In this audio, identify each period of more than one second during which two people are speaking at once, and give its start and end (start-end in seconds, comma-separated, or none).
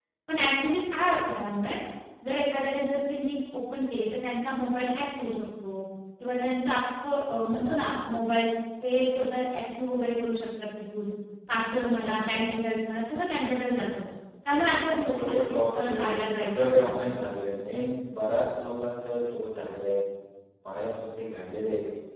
14.8-16.9